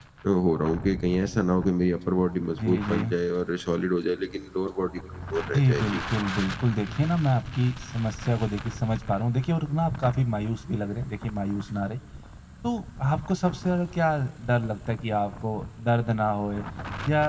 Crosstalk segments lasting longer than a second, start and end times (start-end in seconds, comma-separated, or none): none